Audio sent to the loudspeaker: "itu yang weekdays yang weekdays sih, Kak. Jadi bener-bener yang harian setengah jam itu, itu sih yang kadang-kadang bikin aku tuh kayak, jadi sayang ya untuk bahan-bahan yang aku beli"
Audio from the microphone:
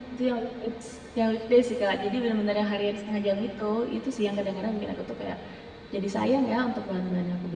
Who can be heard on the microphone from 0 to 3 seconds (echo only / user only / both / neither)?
echo only